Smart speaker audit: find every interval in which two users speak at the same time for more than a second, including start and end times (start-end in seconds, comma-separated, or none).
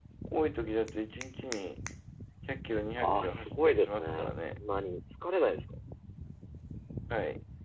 3.0-4.4